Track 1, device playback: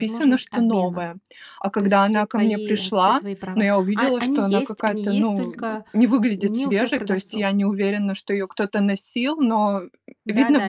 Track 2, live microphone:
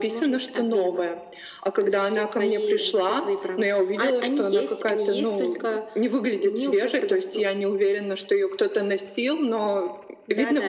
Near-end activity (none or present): none